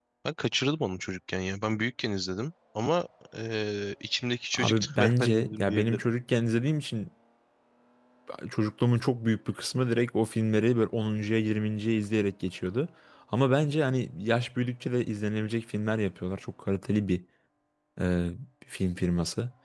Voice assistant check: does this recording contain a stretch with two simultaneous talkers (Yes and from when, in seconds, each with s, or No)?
Yes, from 4.5 s